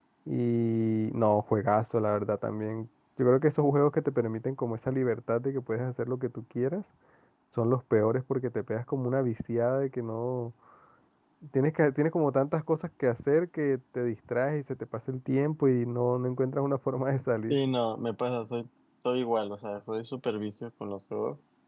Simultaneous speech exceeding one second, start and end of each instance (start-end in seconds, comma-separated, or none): none